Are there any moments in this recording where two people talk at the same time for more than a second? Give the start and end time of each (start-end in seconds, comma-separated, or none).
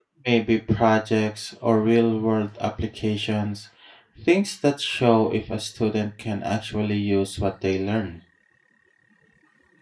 none